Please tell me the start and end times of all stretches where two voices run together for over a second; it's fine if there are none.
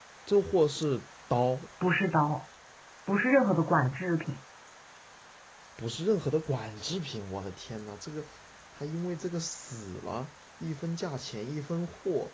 none

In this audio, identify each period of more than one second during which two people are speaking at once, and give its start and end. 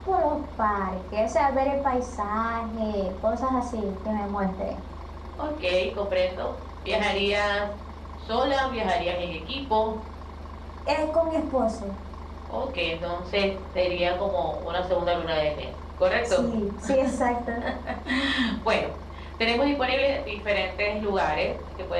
none

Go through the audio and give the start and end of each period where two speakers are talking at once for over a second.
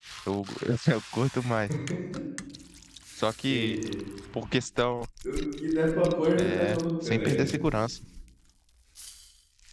6.4-7.6

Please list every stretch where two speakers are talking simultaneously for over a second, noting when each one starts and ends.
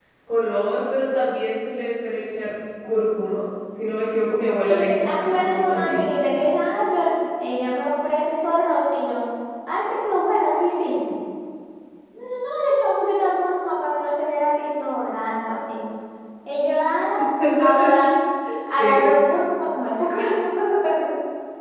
4.7-6.1

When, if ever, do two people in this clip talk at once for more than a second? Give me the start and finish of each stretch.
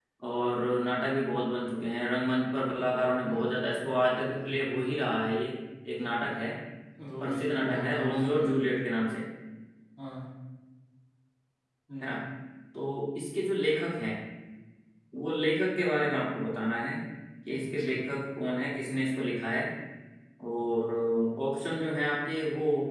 7.2-8.7

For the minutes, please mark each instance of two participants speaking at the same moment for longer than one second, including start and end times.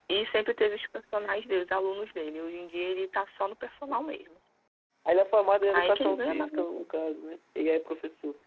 5.7-6.9

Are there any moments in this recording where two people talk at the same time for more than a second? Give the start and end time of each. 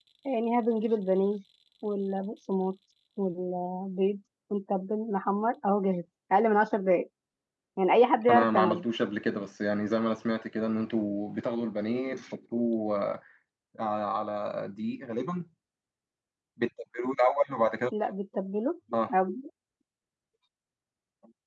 none

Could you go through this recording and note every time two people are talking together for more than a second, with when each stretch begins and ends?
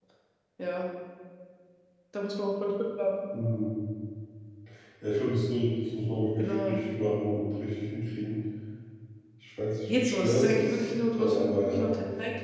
9.9-11.9

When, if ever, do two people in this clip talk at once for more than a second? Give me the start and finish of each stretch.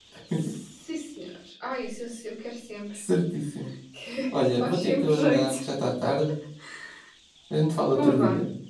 4.3-5.5

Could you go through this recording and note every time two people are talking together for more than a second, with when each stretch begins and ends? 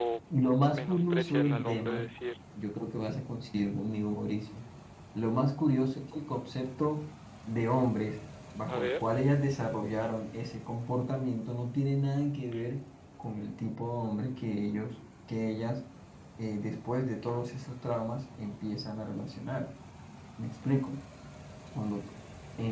0.7-2.0

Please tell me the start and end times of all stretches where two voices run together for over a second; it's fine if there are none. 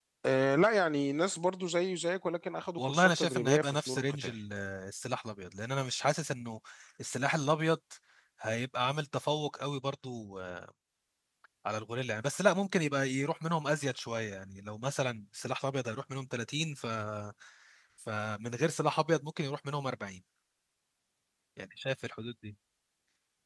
2.8-4.3

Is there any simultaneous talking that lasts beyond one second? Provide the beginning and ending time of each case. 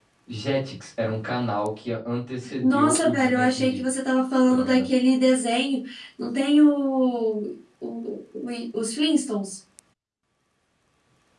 2.6-3.8

